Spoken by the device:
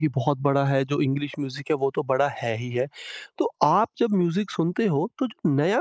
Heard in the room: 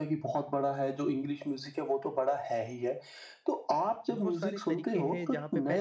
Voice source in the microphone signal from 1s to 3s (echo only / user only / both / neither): echo only